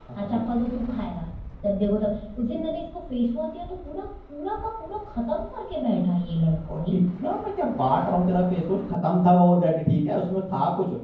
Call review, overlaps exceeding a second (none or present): none